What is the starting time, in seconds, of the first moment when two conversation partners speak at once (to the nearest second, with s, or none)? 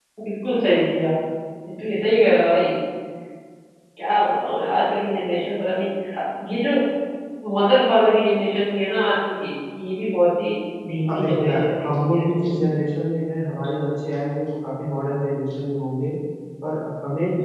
11 s